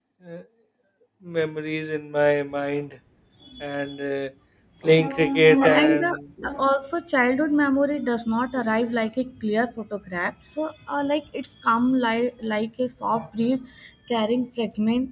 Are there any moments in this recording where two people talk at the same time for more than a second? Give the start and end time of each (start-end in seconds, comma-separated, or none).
5.0-6.2